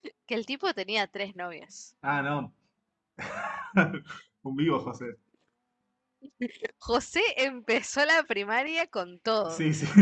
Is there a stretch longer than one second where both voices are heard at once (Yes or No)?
No